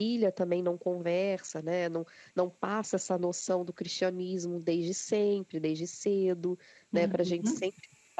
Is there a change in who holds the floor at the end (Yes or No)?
No